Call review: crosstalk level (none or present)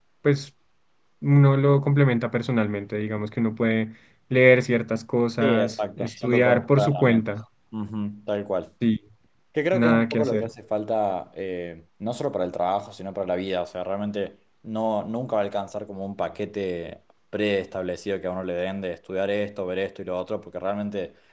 present